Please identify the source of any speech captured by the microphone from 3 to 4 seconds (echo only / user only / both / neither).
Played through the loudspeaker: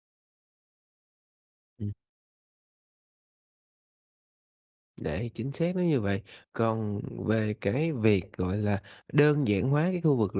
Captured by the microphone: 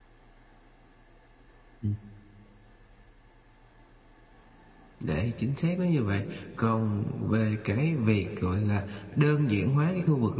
neither